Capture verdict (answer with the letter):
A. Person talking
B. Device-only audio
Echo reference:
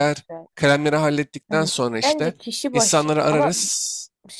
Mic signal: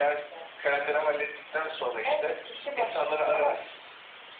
B